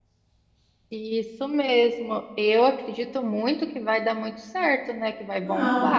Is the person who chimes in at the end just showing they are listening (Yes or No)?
No